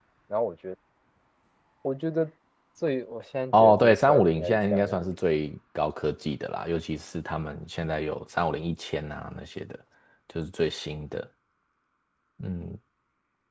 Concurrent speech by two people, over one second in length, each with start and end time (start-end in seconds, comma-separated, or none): 3.6-5.0